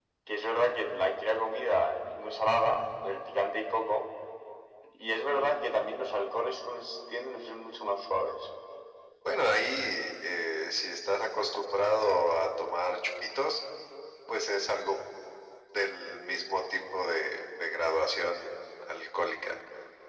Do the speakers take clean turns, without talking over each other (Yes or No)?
Yes